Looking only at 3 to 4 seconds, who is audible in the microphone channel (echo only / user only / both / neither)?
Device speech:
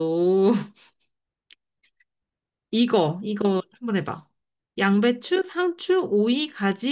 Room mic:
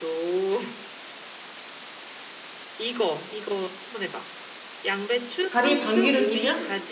echo only